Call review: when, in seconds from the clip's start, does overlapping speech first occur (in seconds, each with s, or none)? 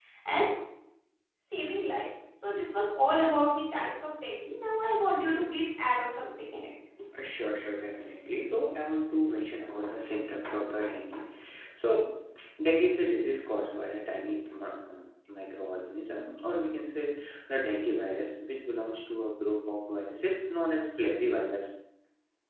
none